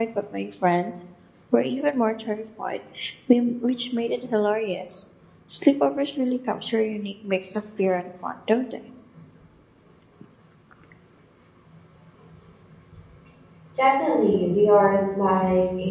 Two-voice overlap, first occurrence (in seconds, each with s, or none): none